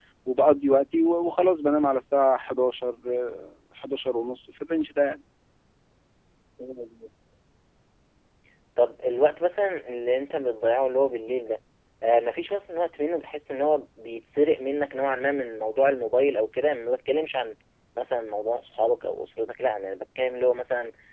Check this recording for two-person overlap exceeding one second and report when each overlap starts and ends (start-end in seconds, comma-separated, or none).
none